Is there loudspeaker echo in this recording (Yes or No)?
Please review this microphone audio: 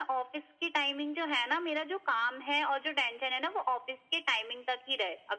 Yes